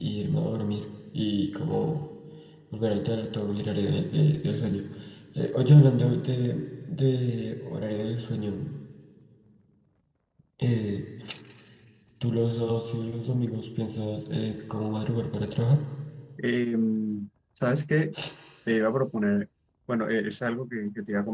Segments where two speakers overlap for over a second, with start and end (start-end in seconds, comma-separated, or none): none